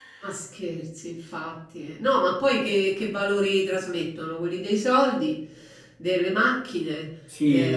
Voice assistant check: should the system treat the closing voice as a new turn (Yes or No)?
Yes